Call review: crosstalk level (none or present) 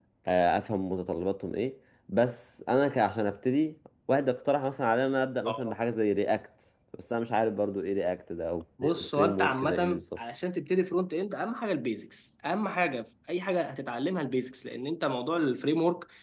present